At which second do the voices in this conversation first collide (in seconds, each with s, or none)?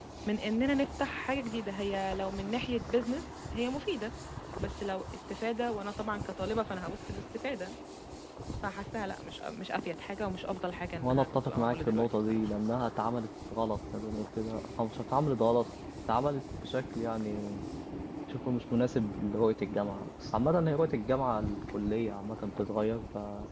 11.0 s